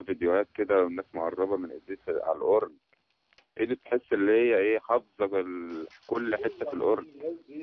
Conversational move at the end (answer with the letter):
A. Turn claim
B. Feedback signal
A